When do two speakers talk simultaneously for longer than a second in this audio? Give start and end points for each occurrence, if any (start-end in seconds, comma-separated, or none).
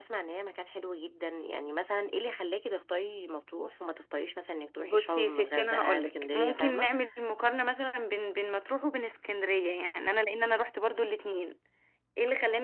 4.8-6.9